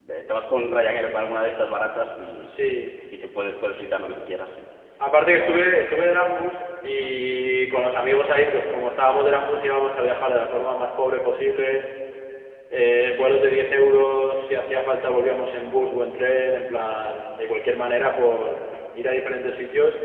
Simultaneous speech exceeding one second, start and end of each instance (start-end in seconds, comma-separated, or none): none